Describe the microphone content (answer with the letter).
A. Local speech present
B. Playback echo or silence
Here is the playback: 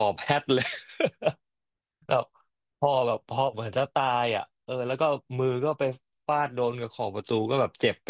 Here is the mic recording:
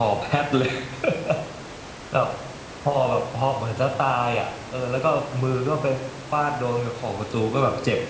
B